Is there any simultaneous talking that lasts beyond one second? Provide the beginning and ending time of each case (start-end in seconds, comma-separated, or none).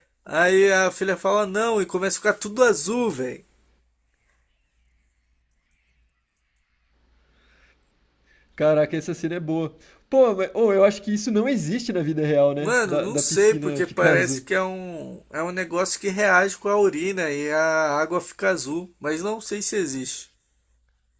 12.6-14.4